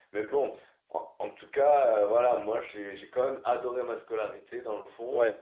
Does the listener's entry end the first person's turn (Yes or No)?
No